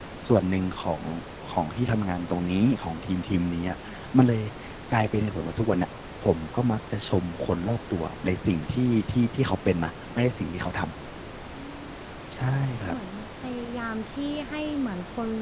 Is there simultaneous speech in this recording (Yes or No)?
No